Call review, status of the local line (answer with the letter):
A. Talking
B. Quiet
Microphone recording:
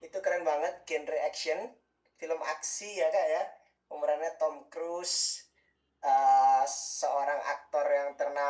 B